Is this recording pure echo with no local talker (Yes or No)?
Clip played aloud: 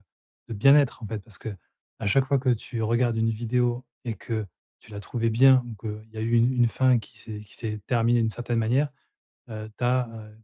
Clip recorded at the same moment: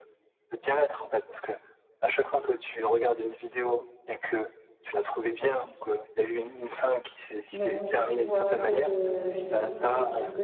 No